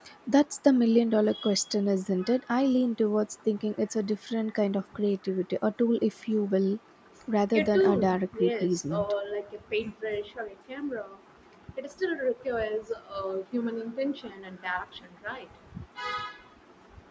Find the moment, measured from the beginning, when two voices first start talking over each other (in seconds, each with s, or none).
7.5 s